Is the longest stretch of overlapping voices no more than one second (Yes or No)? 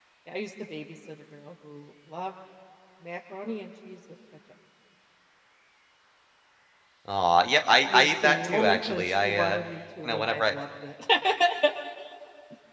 No